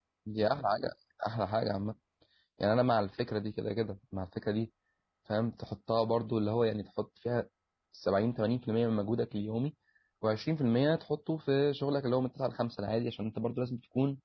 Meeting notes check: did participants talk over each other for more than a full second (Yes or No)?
No